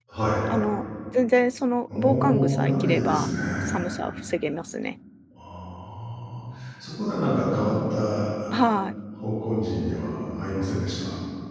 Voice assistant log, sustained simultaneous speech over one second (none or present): present